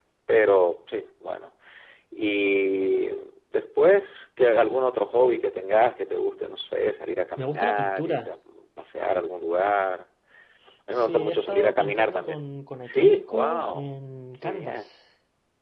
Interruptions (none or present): present